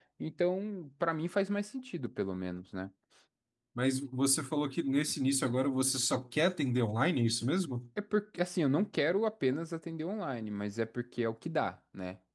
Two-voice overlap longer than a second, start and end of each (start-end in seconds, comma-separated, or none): none